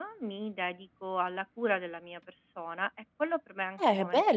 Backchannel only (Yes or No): No